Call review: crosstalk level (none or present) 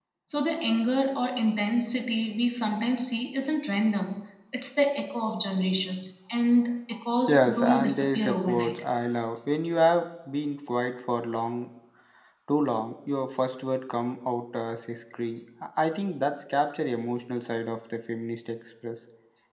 present